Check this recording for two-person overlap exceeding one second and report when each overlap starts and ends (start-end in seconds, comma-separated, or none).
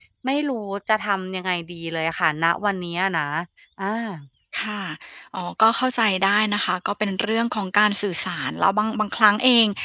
none